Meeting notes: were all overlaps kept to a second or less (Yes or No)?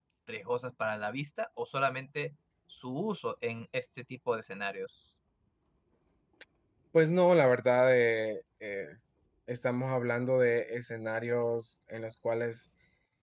Yes